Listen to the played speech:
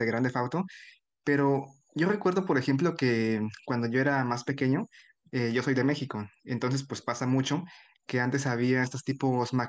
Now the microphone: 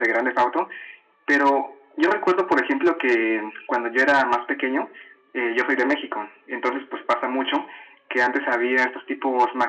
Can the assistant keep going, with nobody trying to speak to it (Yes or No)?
Yes